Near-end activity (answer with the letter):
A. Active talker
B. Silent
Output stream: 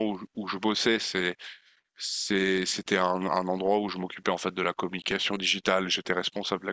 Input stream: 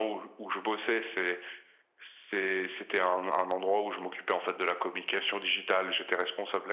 B